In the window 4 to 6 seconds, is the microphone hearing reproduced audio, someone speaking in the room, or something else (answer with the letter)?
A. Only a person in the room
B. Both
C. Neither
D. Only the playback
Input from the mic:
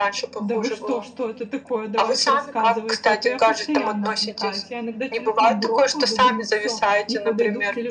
B